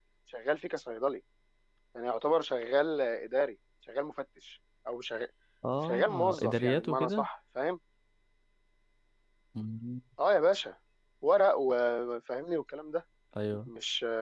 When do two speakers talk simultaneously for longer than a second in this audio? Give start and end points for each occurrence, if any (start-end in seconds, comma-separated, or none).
5.8-7.3